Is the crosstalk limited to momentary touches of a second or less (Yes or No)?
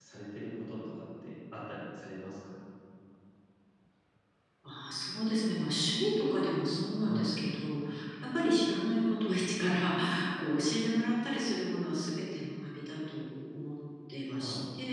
Yes